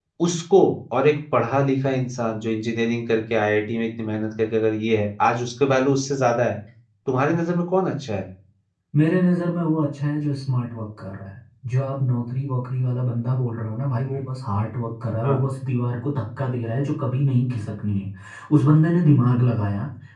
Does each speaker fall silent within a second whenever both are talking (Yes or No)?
Yes